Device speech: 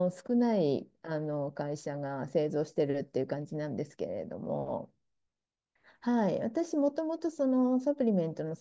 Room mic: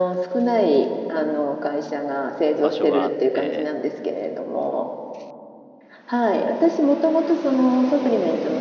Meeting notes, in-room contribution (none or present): present